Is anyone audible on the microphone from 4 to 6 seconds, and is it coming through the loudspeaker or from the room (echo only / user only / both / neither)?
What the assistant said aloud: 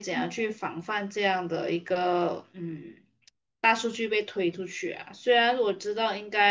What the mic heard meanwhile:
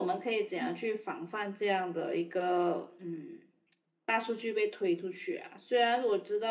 echo only